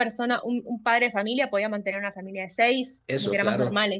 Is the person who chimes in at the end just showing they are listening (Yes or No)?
No